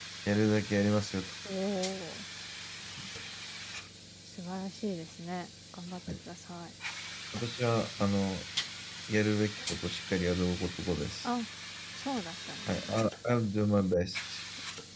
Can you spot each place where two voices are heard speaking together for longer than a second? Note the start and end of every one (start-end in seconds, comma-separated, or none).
none